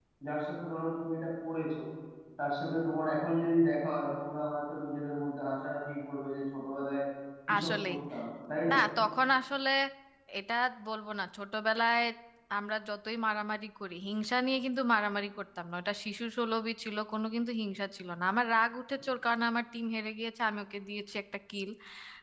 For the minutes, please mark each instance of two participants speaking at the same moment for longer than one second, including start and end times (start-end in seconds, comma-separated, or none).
none